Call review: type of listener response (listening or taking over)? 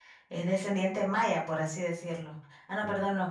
listening